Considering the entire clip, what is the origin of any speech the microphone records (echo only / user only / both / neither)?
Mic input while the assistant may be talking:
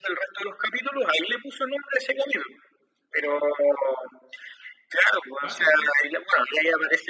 both